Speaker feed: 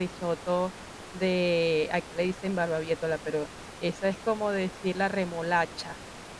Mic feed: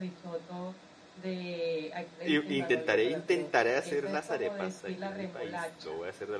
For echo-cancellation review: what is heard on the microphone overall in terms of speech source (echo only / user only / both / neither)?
both